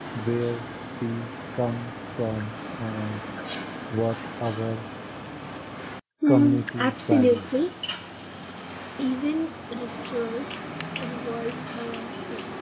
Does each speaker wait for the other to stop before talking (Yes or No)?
No